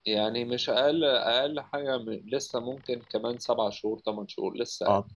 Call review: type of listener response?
taking over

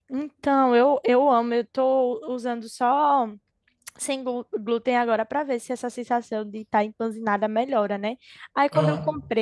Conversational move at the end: listening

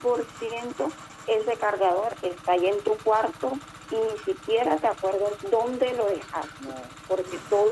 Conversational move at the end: listening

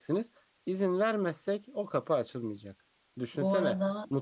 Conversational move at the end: listening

